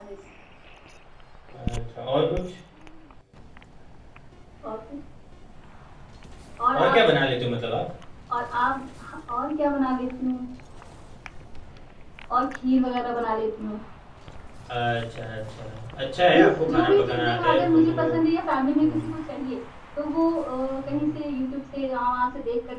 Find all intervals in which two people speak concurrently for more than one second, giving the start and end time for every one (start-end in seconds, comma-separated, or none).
16.3-17.9